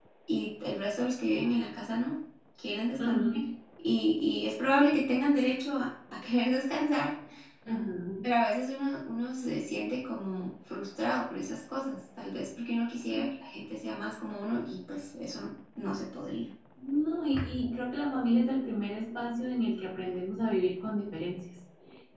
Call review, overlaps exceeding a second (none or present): none